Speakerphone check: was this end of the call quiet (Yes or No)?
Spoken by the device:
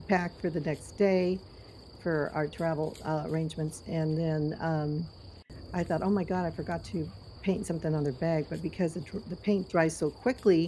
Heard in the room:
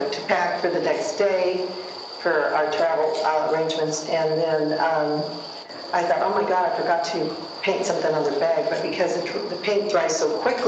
Yes